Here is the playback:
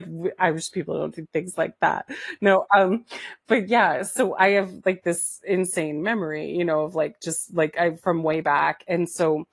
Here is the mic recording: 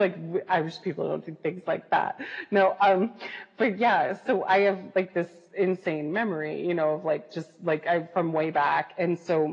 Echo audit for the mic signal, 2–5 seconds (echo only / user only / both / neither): echo only